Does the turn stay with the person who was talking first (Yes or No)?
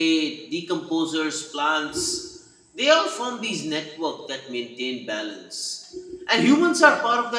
Yes